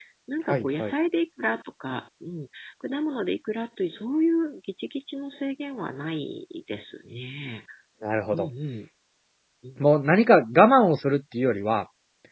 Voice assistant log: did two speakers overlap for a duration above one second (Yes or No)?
No